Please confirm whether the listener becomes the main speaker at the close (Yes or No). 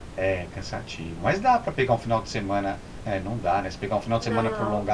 No